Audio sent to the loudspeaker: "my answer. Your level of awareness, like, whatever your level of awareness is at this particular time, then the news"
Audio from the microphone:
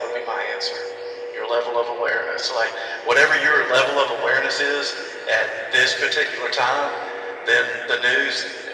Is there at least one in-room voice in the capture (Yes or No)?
No